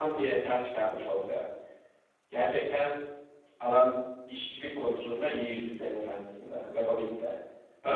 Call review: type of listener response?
listening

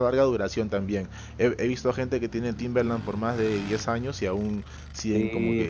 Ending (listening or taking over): taking over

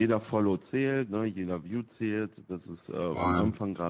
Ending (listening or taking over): listening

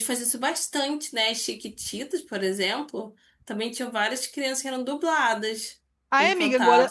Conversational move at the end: taking over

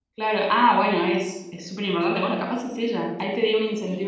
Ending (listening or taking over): taking over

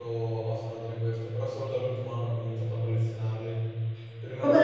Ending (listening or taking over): listening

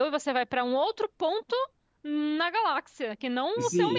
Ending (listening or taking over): taking over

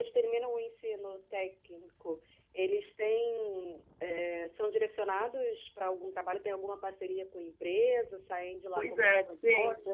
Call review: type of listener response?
taking over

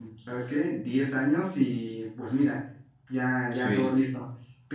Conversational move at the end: listening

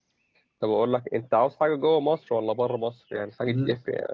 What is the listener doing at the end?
listening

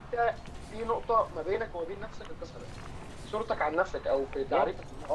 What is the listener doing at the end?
taking over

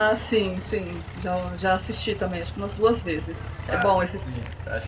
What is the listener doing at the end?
taking over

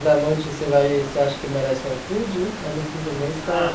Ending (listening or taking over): taking over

